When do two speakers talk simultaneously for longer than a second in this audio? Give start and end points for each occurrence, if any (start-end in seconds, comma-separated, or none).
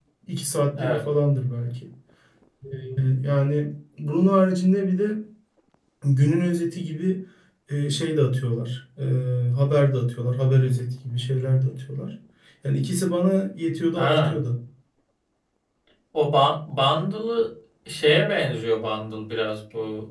none